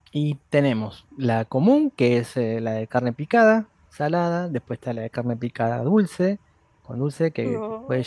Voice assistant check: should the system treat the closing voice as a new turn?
No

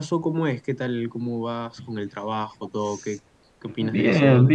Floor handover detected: Yes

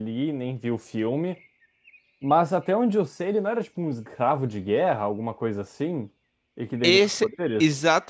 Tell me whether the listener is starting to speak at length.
Yes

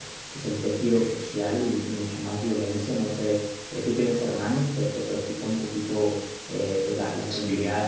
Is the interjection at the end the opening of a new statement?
No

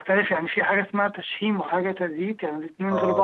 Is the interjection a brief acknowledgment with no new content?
No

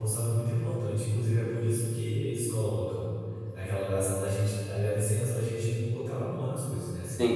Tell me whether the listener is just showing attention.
No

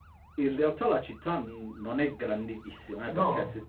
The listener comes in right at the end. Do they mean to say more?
No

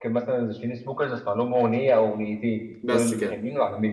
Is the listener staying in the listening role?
Yes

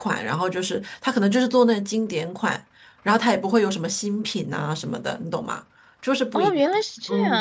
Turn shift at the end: Yes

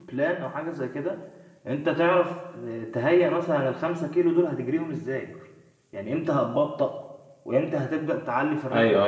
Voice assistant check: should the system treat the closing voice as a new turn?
Yes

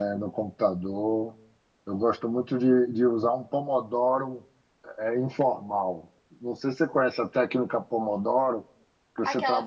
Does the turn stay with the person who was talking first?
No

